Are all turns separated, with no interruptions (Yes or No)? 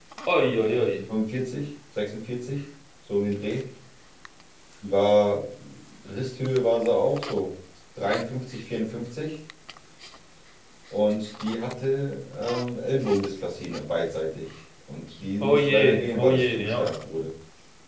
No